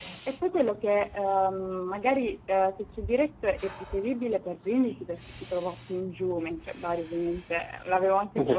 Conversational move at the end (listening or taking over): taking over